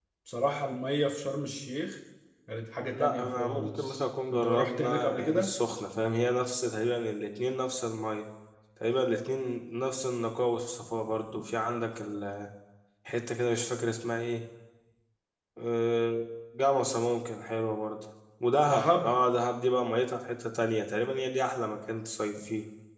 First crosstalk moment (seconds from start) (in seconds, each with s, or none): 2.9 s